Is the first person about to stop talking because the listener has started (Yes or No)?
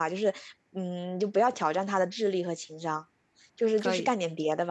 No